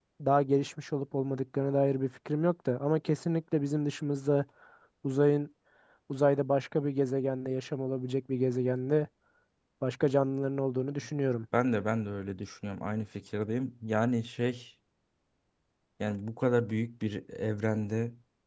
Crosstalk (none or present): none